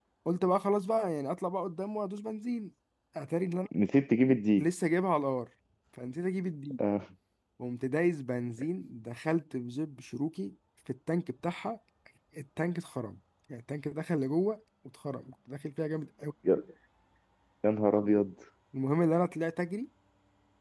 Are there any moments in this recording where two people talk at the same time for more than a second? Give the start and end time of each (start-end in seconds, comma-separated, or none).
none